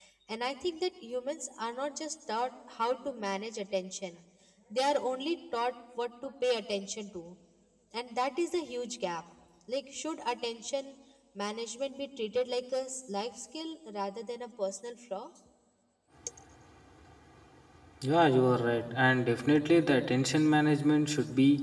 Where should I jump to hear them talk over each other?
none

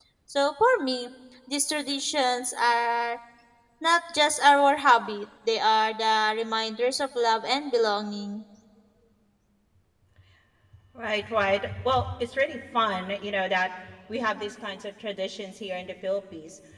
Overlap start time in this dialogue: none

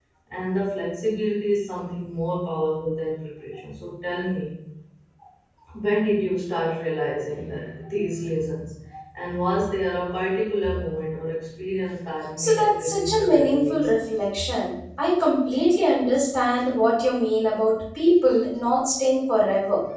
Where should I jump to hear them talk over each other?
12.4 s

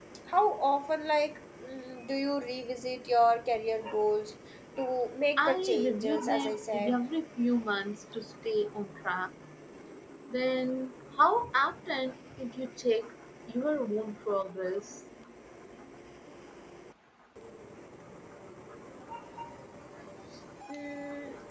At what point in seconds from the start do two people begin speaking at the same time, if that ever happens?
5.4 s

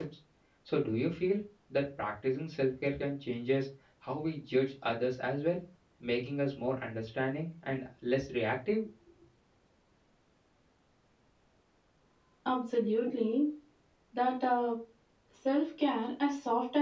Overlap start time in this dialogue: none

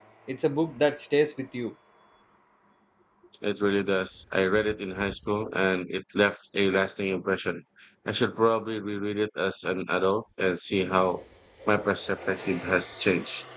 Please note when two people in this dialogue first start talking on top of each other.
none

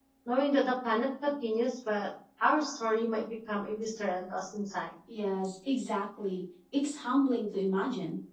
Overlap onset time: none

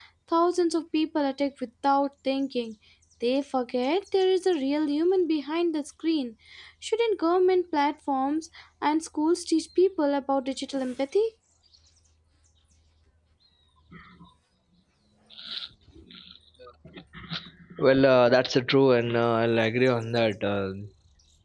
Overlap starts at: none

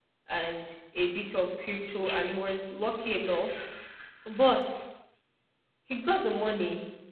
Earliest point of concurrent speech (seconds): none

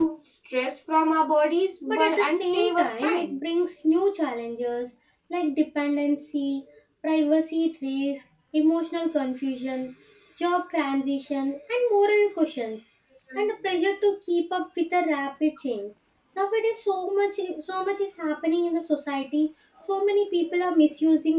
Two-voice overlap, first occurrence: 1.9 s

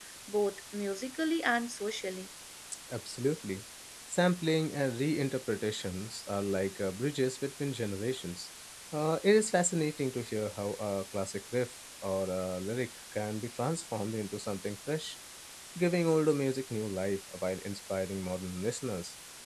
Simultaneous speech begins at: none

